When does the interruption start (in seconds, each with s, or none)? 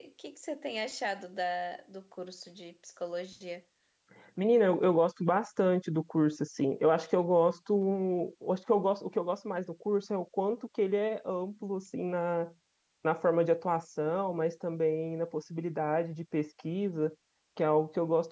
none